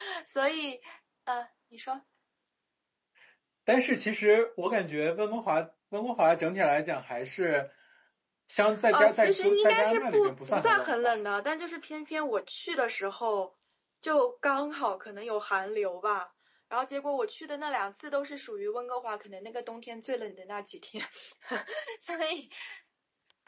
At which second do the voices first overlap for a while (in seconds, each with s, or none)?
8.9 s